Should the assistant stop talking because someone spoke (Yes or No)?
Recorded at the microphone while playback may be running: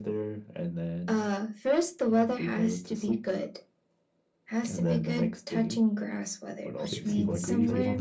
Yes